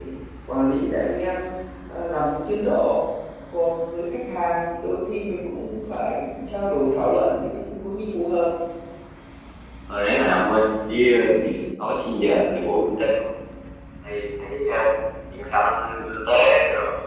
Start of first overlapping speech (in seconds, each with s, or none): none